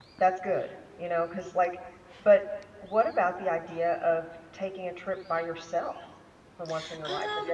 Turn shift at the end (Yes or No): Yes